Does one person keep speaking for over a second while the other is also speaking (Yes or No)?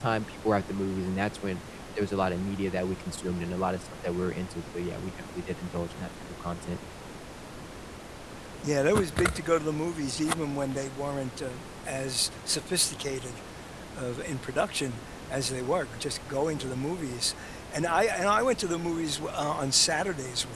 No